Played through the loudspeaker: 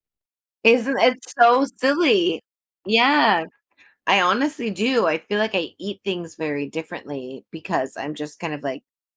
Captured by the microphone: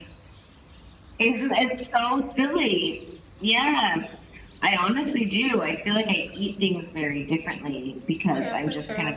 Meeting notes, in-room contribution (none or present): present